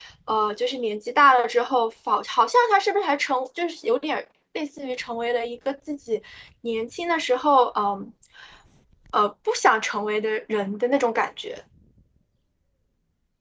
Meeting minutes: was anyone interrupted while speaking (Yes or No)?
No